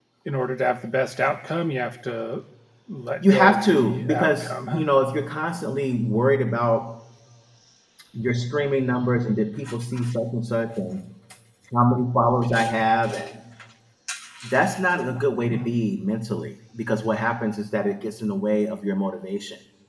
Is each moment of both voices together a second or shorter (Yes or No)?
No